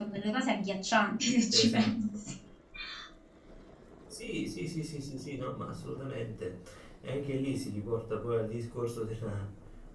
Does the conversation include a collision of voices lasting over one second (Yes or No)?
No